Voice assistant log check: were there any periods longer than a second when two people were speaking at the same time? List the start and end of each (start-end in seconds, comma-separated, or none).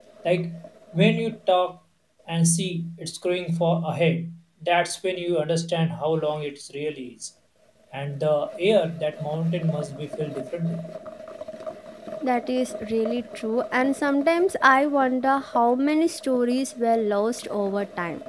none